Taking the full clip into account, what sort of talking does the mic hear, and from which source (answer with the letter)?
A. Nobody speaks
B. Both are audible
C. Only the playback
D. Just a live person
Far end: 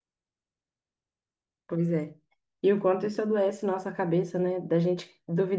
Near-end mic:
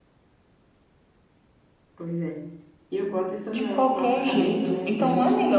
B